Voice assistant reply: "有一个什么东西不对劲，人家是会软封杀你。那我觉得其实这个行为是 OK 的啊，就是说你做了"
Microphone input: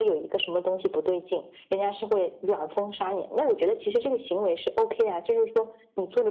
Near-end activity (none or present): none